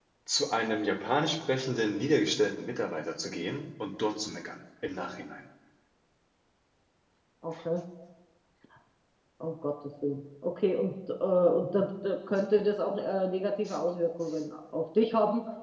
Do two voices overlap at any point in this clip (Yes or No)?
No